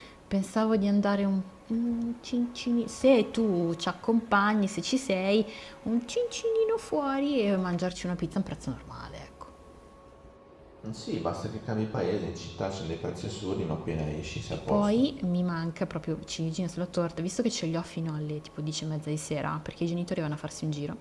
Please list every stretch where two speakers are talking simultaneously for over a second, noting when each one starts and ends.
none

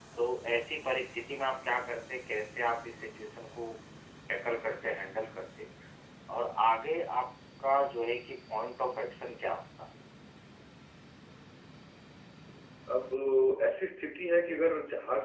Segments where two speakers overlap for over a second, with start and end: none

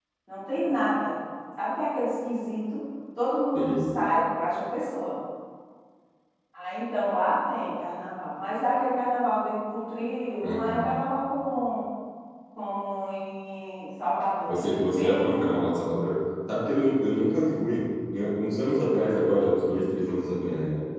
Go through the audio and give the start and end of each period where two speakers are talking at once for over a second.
14.5-15.7

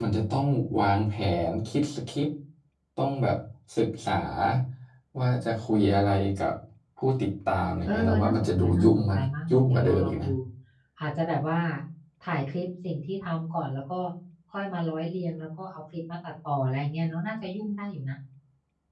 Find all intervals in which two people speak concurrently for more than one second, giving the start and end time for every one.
7.8-10.3

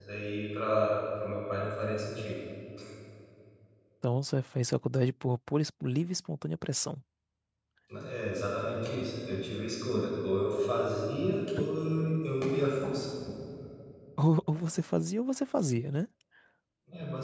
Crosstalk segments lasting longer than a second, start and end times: none

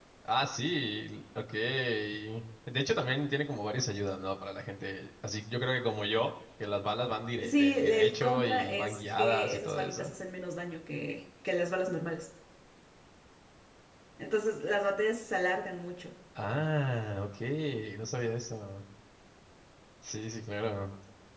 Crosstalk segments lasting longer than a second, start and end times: 7.4-10.1

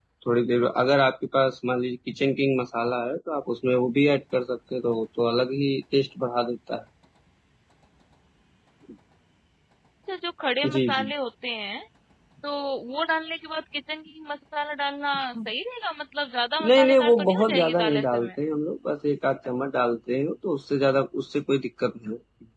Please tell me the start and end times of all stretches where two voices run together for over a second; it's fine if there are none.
16.7-18.3

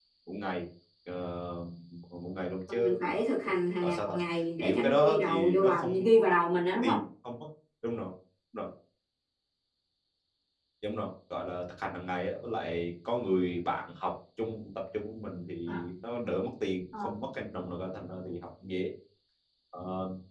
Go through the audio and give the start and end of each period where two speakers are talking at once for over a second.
4.6-5.9

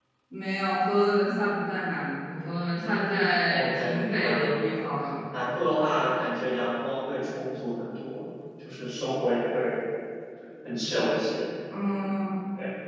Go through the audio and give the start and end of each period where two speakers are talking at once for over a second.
3.5-4.9

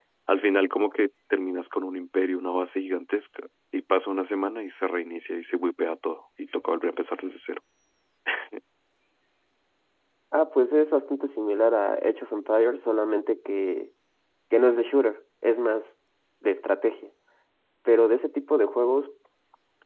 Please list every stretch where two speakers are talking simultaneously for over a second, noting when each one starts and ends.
none

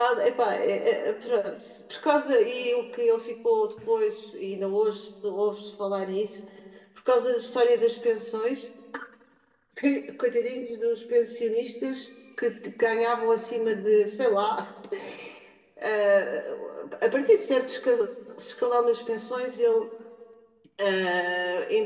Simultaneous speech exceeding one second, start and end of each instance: none

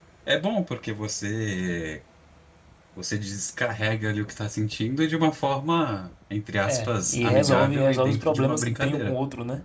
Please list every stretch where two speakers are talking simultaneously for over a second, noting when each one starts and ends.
6.7-9.1

